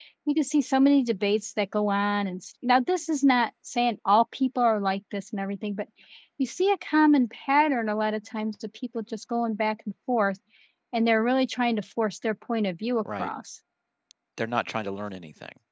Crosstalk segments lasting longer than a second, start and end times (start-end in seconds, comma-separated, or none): none